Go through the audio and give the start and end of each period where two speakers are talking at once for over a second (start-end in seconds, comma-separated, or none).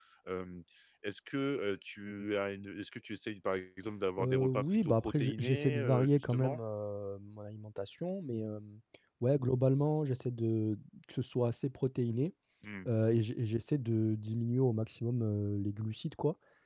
4.2-6.6